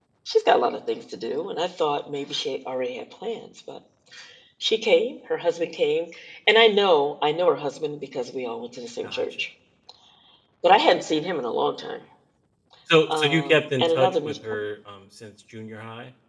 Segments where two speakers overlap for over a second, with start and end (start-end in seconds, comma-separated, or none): 13.1-14.3